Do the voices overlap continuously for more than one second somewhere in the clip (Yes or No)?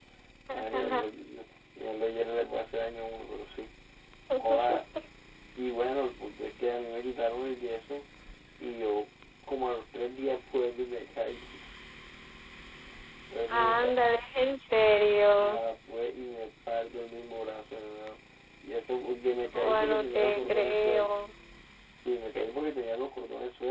Yes